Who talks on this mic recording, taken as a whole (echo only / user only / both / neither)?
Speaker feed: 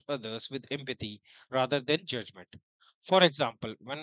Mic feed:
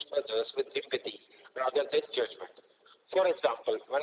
echo only